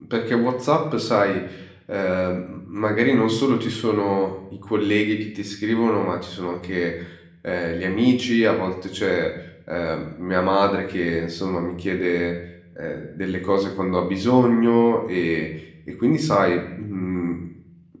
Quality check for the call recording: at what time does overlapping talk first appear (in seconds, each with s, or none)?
none